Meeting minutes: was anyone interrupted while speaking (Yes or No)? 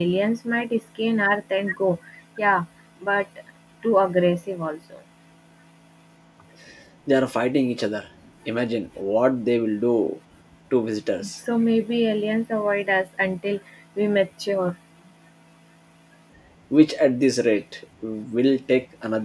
No